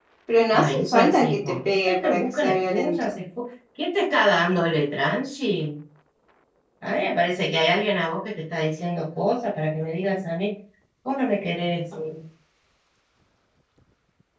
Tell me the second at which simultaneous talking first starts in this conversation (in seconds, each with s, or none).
0.5 s